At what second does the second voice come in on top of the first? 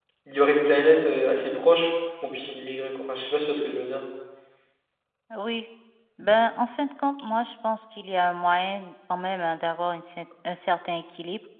none

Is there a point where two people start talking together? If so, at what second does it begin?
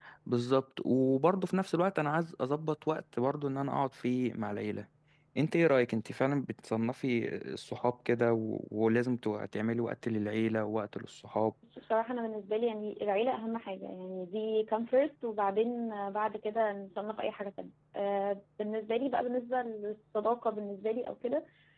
none

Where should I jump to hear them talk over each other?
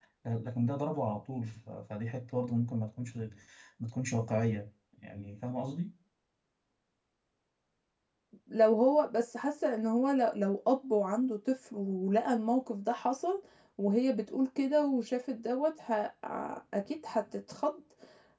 none

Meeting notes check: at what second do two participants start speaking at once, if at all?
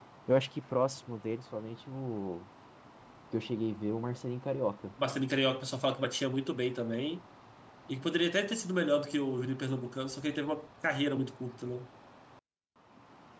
none

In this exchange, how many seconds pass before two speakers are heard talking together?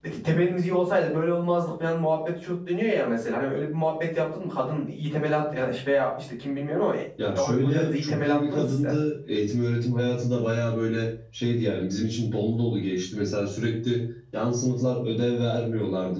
7.2 s

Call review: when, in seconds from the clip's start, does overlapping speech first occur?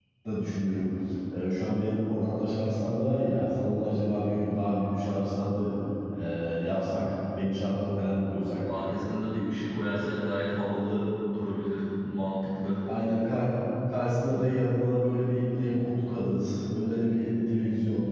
none

